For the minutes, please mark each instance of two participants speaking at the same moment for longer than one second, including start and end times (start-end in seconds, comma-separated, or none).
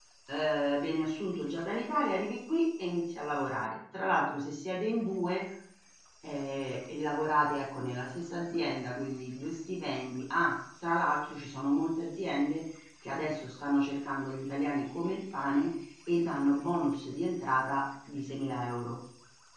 none